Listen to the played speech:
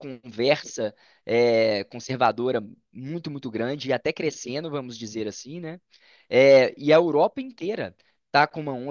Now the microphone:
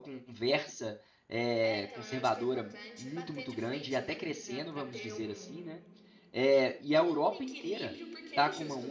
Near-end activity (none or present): present